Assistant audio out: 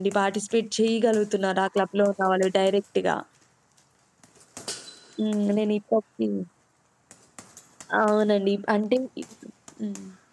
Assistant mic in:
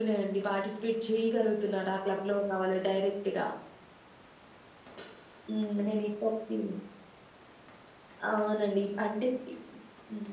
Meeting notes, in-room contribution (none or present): none